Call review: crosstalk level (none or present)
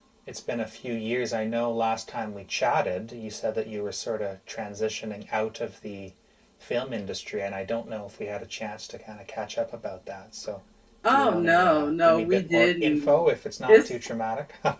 present